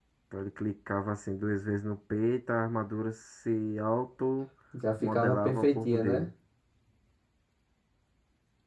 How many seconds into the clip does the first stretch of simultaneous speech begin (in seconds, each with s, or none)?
5.0 s